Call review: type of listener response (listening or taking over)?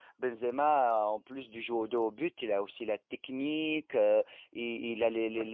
listening